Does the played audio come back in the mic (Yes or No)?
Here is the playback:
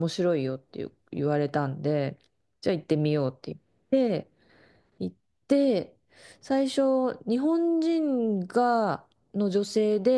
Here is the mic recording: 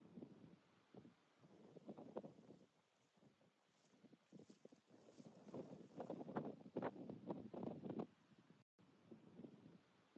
No